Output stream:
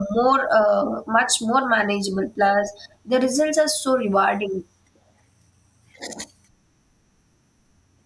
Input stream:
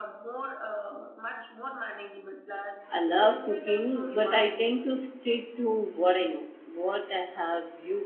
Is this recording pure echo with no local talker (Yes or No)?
No